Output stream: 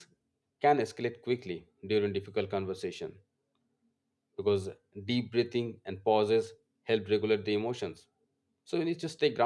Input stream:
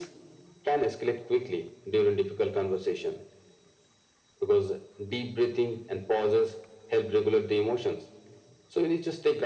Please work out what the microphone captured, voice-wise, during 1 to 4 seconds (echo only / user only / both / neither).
echo only